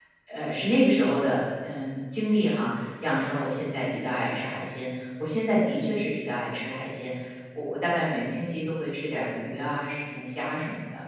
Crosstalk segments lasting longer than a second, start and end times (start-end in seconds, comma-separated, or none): none